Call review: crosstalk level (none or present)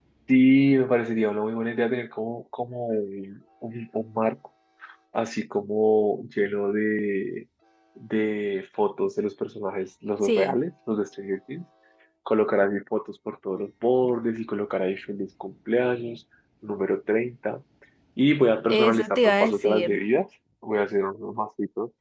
present